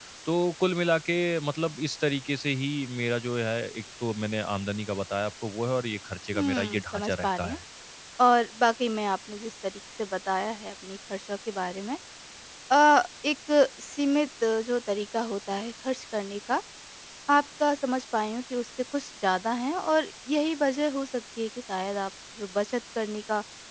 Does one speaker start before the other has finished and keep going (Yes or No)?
Yes